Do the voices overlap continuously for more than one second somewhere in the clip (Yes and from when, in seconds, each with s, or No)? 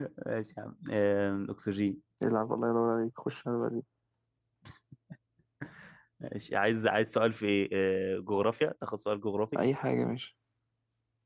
No